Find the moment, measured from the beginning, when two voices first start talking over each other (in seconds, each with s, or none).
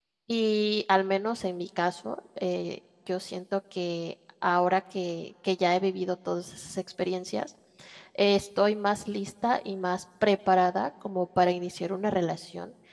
none